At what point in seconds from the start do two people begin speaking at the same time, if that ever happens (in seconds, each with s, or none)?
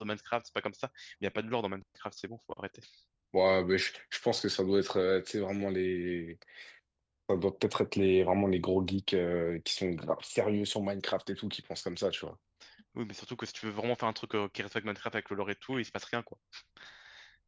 none